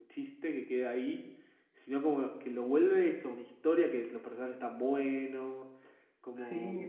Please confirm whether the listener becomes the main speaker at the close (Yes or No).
Yes